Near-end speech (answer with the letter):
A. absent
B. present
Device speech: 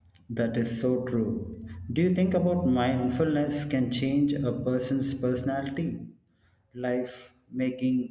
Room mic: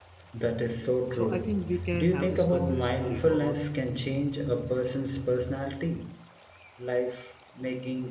B